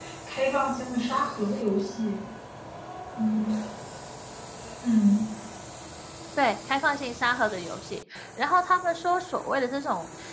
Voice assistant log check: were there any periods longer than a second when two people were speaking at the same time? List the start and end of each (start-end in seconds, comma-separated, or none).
none